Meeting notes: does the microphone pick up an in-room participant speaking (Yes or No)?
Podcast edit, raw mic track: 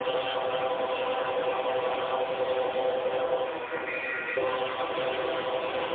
No